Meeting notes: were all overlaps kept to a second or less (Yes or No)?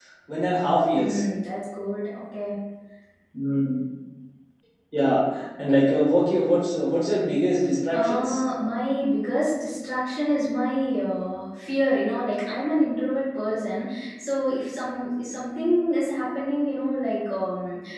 Yes